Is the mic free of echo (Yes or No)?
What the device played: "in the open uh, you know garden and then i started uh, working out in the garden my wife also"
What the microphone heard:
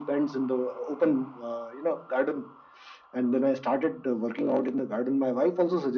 No